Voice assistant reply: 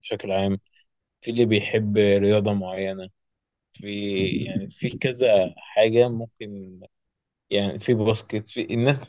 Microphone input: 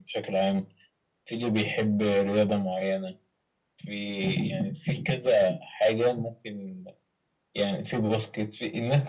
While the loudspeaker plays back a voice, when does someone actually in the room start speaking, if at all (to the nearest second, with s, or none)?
none